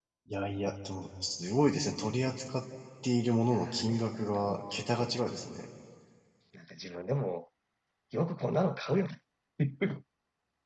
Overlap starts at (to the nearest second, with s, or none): 4 s